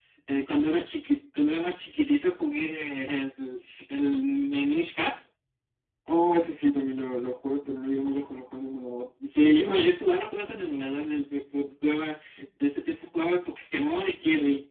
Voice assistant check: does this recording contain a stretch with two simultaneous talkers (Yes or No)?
No